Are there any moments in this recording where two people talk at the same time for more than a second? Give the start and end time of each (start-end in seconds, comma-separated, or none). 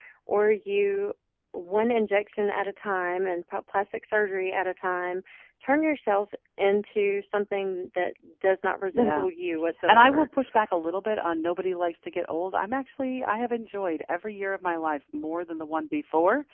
none